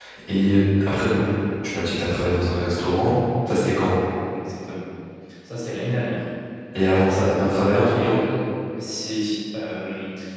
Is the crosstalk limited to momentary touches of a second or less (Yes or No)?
Yes